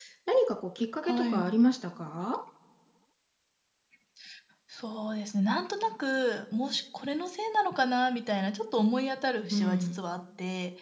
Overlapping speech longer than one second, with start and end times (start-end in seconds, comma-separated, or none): none